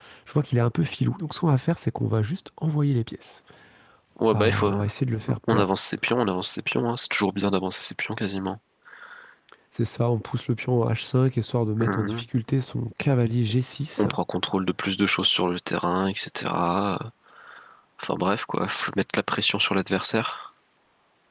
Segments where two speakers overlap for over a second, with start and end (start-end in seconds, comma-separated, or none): none